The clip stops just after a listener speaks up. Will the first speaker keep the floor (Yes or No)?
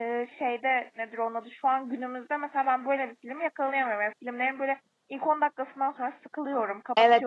No